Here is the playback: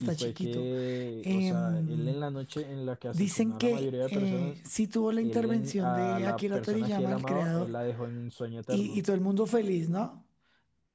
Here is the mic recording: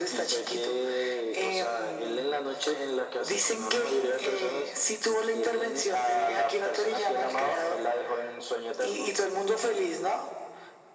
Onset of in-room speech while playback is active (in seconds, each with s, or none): none